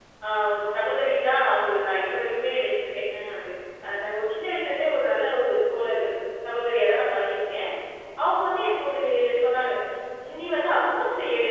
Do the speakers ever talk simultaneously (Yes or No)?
No